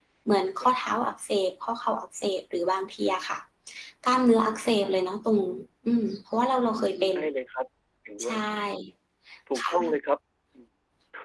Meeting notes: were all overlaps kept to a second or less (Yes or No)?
Yes